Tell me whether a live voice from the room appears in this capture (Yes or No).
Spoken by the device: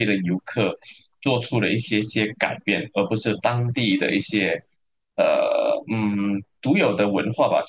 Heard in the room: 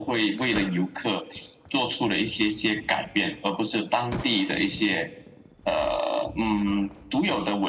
No